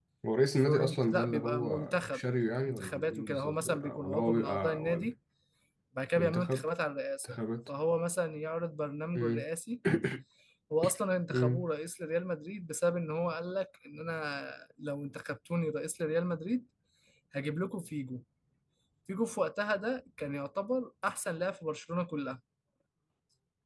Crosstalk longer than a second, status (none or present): present